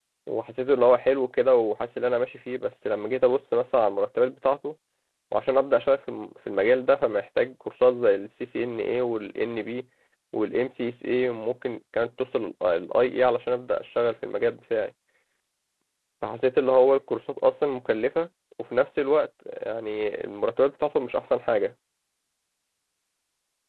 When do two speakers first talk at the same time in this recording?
none

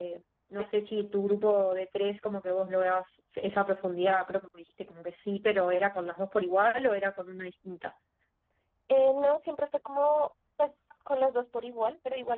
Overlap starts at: none

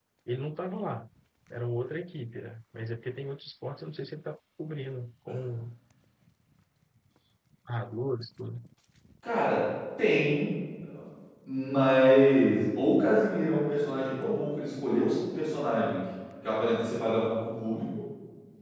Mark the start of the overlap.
none

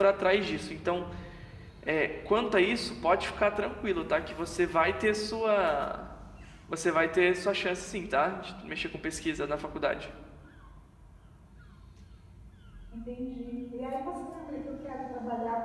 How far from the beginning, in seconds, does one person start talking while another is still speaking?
none

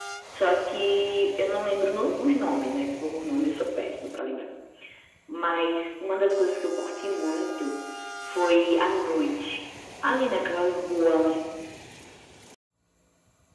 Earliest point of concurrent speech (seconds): none

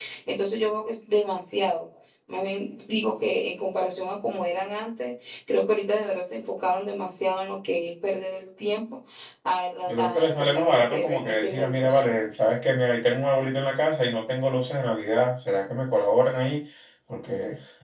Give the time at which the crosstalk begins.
9.9 s

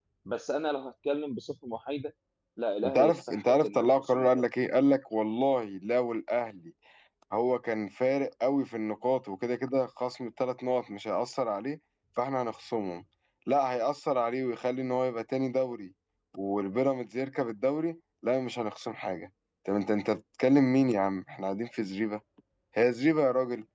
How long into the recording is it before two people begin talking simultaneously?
2.8 s

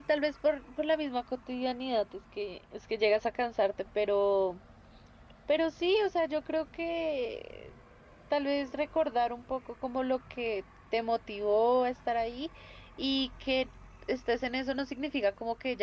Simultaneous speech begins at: none

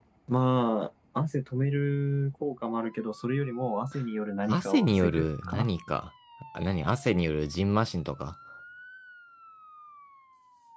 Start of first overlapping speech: 4.5 s

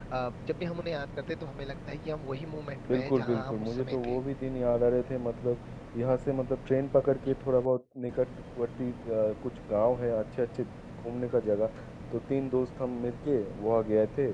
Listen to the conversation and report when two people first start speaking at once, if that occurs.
2.9 s

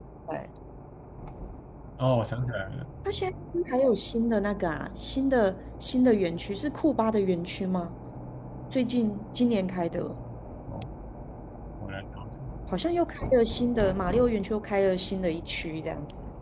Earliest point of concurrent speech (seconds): none

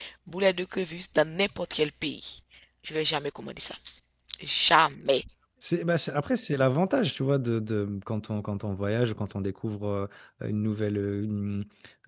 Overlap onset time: none

